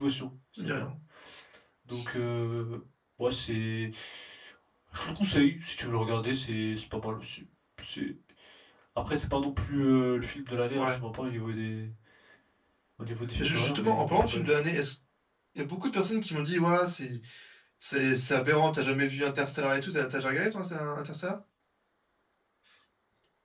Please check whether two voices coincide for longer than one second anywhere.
Yes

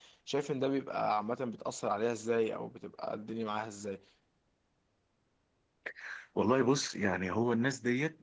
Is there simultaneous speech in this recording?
No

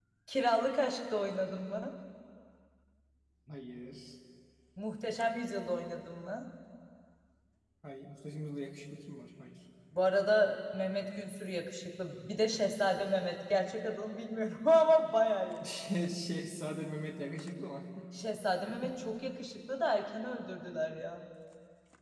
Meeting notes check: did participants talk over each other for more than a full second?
No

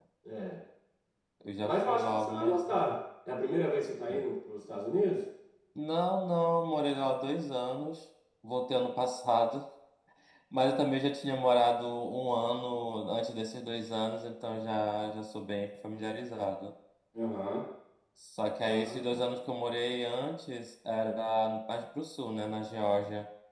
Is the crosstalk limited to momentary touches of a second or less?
No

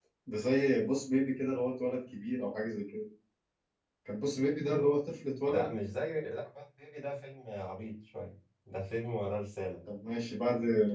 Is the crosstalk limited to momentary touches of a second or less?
Yes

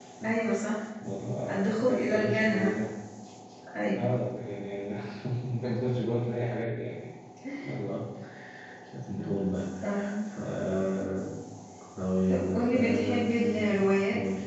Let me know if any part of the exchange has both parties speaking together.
Yes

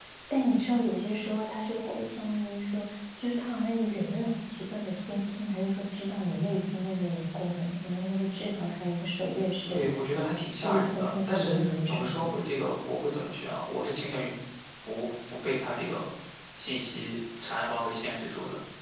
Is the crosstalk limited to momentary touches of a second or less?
No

